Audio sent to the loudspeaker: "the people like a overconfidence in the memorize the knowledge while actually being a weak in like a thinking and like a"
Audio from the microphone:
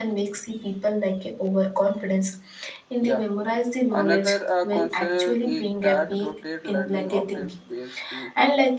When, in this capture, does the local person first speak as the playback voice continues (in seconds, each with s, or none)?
3.0 s